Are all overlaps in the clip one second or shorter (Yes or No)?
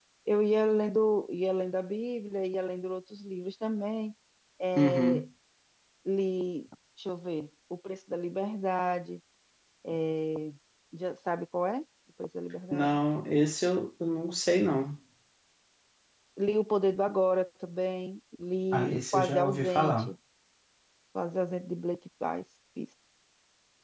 No